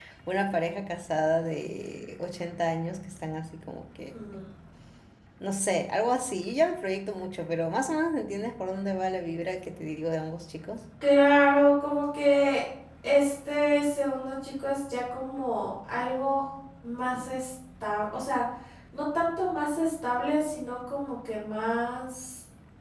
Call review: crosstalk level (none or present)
none